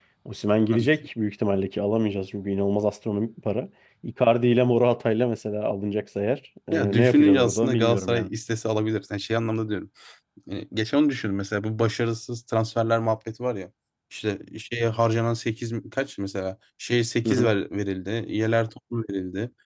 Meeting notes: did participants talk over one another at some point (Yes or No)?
Yes